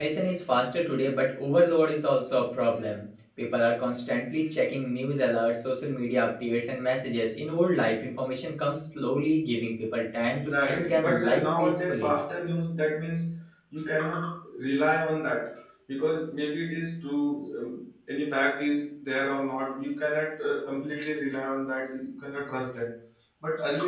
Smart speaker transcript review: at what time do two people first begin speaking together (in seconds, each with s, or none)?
10.4 s